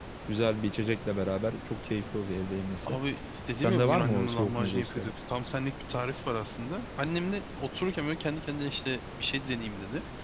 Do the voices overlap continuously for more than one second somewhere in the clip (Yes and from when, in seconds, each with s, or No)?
Yes, from 3.6 s